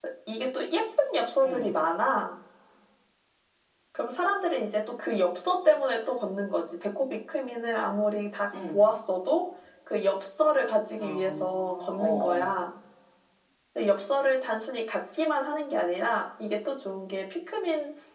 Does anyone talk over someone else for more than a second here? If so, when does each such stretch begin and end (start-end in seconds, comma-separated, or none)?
10.9-12.5